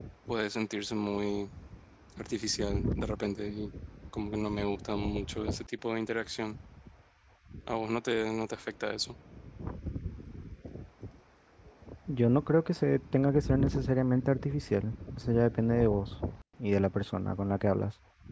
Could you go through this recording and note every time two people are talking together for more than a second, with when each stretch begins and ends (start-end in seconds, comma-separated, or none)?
none